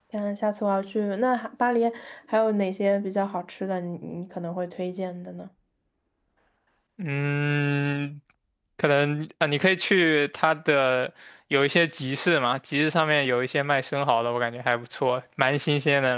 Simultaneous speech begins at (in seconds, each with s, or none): none